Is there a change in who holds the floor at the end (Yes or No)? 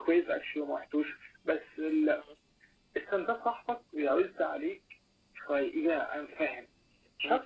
No